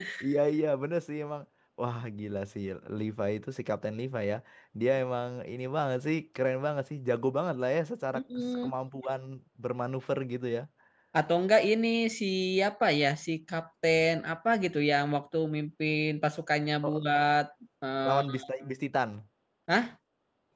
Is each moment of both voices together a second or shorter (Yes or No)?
Yes